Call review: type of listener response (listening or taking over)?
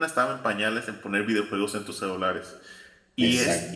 listening